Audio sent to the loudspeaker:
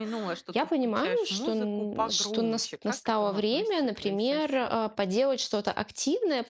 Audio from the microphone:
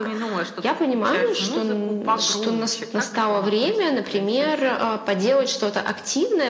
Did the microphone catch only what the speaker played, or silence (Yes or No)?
Yes